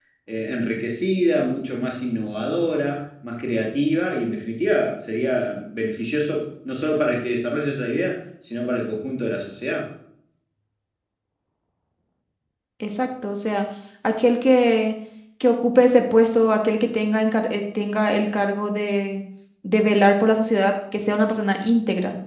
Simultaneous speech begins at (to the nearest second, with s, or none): none